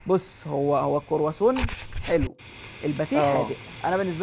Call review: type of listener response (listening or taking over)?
listening